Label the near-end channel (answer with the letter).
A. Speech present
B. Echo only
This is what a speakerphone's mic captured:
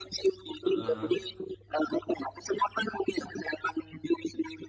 A